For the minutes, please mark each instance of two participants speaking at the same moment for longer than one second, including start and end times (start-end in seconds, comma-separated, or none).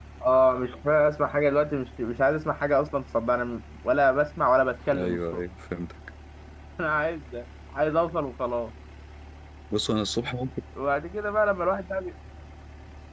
none